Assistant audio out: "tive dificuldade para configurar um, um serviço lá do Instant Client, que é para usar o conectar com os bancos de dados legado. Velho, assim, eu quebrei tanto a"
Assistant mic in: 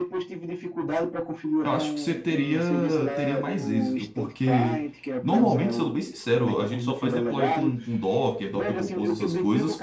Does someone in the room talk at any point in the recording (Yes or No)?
Yes